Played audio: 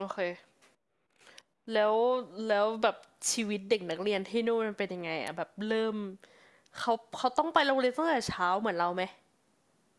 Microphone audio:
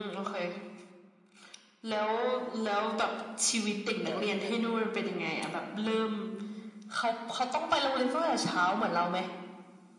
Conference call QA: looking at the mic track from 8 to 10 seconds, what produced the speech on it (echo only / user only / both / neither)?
echo only